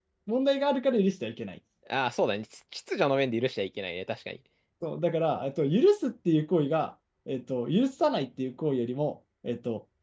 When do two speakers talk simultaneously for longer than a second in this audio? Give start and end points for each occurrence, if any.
none

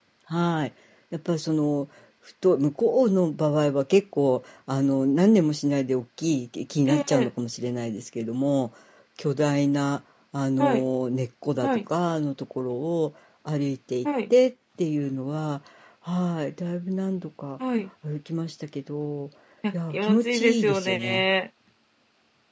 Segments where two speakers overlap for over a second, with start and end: 19.7-21.2

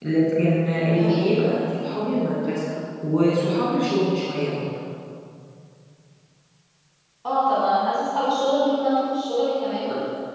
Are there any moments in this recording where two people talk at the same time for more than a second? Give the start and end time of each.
none

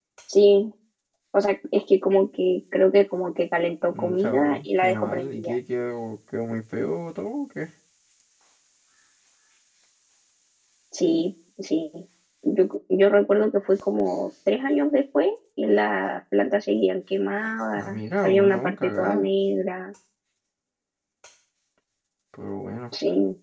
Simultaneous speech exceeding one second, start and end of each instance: 3.9-5.5, 17.8-19.2

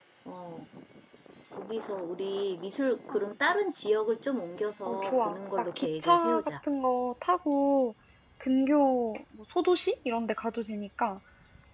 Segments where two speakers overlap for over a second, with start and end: 4.8-6.5

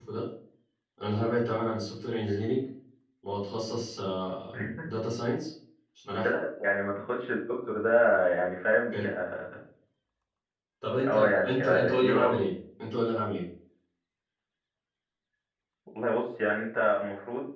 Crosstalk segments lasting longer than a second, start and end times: 11.1-12.5

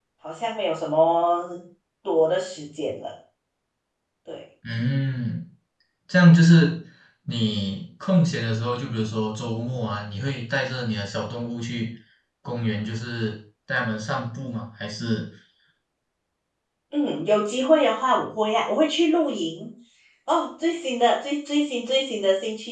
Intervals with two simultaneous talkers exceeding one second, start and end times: none

